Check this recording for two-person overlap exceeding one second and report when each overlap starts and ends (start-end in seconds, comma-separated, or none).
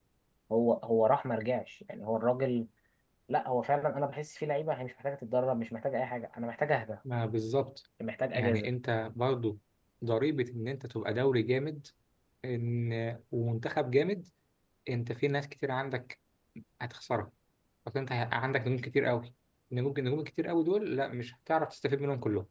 none